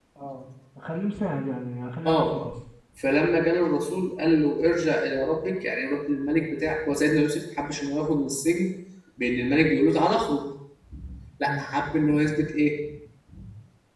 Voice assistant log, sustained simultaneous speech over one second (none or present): none